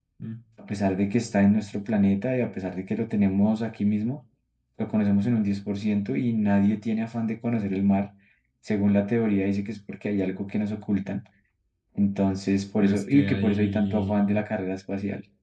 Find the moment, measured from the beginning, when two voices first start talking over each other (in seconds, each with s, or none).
12.8 s